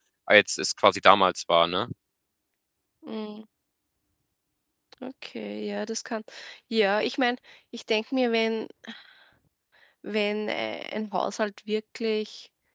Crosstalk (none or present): none